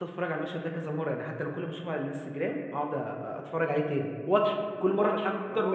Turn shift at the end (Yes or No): Yes